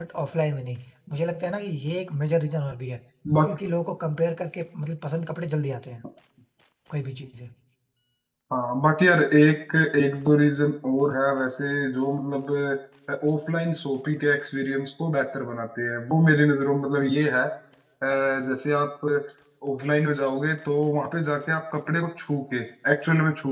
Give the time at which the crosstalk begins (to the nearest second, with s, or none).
none